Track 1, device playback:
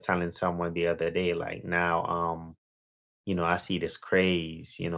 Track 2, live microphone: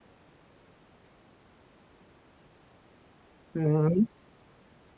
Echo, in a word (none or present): none